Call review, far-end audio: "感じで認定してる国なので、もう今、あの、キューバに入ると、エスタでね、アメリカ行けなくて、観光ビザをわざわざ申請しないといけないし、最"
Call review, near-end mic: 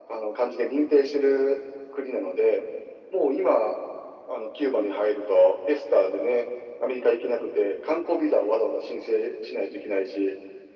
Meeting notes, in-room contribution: none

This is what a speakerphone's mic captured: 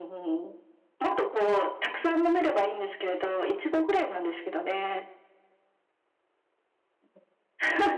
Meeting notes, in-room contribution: none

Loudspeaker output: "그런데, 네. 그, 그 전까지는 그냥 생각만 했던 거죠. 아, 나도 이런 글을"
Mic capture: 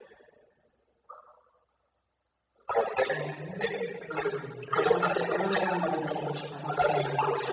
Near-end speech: present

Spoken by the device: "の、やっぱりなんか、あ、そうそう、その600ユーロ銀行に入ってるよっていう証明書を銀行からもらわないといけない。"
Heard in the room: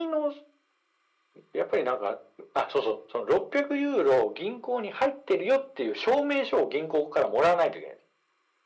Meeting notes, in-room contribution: none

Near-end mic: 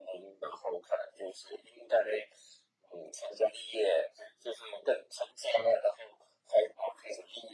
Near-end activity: none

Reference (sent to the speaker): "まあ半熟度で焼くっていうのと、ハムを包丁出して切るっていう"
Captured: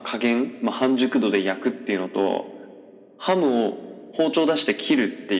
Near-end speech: none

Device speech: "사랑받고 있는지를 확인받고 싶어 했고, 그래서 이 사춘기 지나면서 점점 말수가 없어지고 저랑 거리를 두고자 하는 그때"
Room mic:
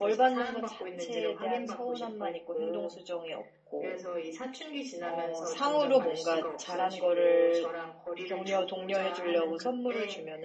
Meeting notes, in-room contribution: present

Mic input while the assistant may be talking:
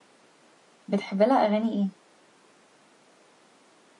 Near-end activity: present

